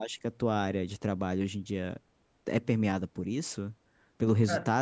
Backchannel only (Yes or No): Yes